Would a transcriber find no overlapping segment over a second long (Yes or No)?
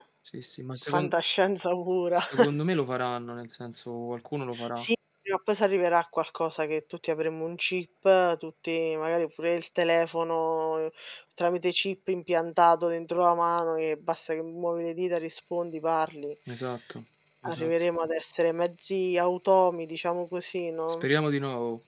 Yes